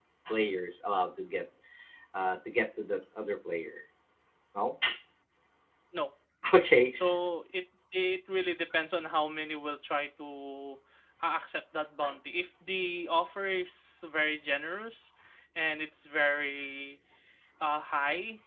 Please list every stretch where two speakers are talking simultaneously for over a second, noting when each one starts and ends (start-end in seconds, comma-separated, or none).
none